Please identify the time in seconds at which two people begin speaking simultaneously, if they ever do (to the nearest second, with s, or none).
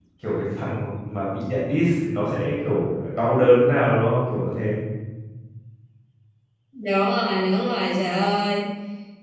none